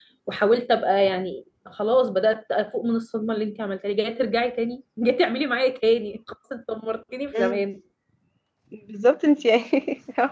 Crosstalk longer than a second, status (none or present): none